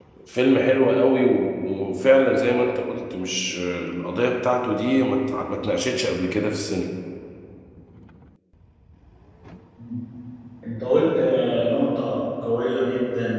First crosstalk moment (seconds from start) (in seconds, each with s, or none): none